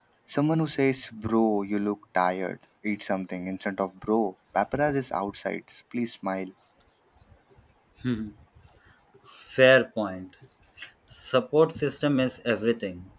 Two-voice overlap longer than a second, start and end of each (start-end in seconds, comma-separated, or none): none